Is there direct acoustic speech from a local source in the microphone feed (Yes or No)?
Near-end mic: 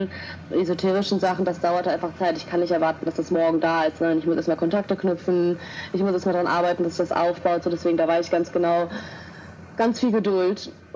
No